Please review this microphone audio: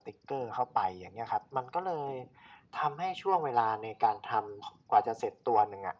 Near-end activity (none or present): none